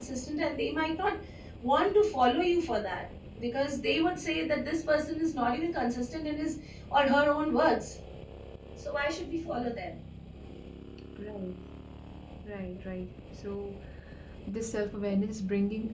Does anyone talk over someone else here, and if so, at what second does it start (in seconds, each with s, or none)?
none